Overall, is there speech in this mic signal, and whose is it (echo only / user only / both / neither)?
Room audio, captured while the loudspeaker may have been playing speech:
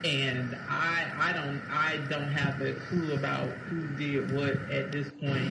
echo only